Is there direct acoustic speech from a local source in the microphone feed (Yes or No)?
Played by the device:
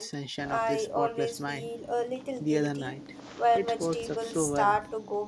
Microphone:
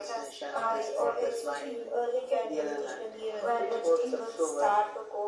Yes